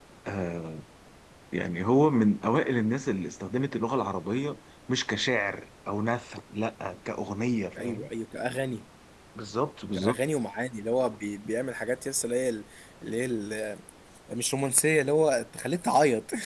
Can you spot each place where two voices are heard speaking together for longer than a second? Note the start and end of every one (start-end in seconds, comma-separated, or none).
none